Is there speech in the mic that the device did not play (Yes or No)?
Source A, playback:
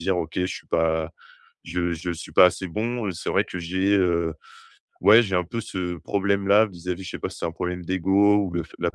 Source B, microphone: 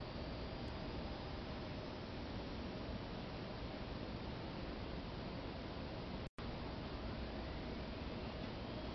No